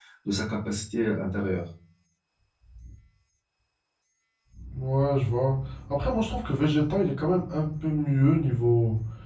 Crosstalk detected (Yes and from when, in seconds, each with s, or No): No